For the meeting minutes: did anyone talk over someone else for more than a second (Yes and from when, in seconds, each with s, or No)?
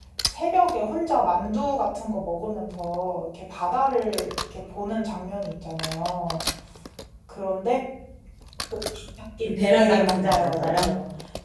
Yes, from 9.4 s